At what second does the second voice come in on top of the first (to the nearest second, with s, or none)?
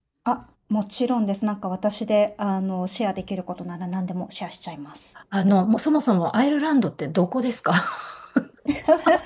none